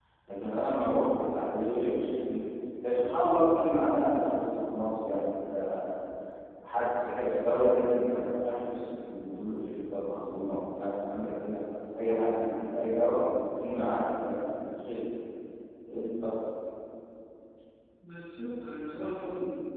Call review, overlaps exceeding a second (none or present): none